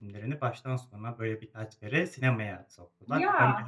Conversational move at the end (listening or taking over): listening